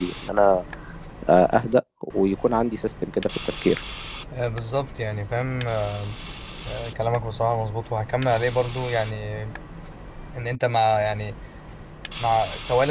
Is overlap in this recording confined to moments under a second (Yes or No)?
Yes